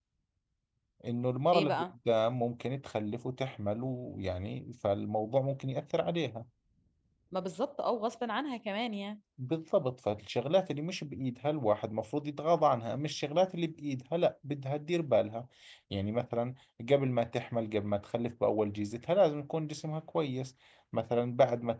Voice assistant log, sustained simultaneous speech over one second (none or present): none